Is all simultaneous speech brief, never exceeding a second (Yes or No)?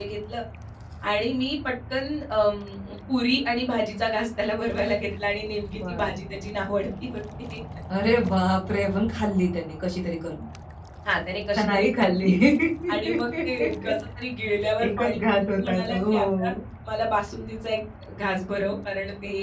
No